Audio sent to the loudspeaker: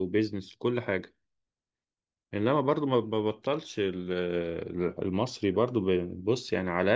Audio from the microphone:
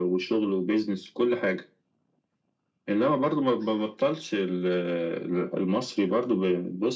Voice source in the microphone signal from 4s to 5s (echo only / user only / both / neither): echo only